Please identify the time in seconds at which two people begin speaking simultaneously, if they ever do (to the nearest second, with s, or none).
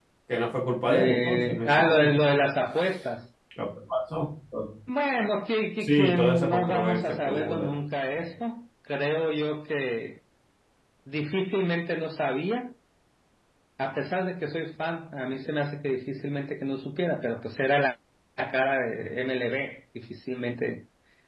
1 s